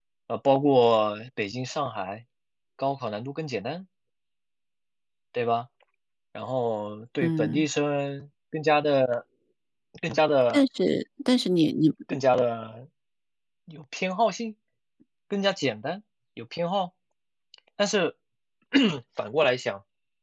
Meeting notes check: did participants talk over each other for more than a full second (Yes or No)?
No